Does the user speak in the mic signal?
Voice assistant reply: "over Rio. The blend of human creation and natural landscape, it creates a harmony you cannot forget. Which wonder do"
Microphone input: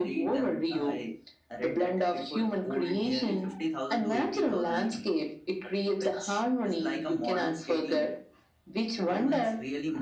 Yes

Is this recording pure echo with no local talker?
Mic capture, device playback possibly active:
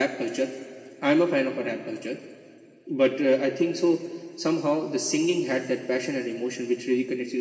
Yes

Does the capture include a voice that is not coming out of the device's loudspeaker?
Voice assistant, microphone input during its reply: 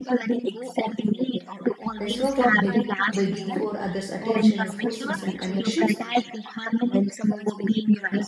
Yes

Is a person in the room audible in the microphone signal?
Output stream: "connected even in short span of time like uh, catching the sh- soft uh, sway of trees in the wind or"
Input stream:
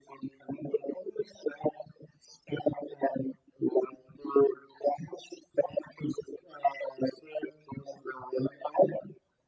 No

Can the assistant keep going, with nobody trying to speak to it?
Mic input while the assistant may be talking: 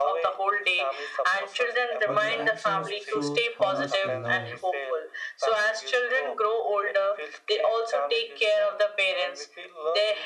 No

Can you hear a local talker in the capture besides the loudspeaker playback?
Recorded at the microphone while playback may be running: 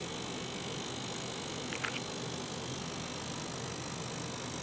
No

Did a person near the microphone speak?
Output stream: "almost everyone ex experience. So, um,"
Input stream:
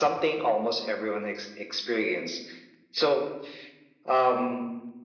No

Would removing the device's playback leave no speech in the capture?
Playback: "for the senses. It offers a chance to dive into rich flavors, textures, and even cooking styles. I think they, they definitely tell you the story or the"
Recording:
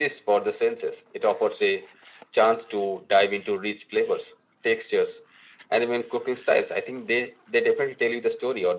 Yes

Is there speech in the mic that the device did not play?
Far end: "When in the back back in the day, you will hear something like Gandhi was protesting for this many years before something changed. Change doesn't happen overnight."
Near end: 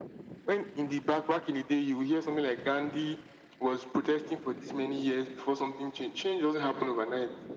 No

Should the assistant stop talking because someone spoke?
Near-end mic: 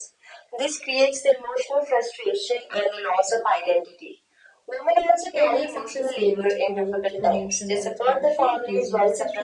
Yes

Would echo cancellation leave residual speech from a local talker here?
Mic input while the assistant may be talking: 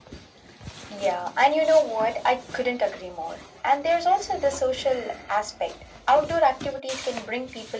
No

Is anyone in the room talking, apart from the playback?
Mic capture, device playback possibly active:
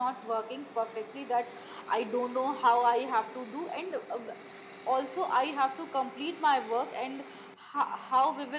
No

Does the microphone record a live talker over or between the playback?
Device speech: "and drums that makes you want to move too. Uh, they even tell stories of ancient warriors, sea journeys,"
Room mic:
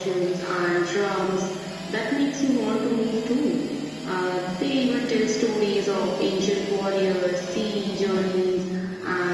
No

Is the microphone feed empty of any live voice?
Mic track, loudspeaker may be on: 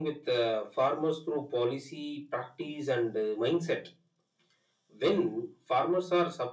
Yes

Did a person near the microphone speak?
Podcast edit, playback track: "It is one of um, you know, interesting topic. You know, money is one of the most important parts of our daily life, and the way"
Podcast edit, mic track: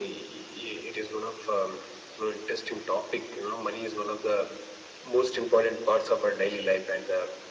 No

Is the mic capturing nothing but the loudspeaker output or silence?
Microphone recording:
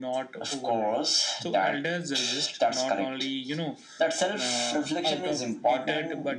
Yes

